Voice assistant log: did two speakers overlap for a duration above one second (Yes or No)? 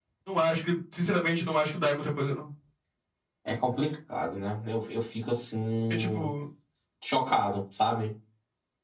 No